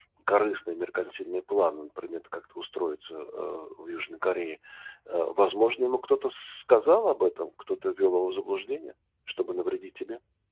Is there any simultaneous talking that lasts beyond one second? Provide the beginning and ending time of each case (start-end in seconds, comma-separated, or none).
none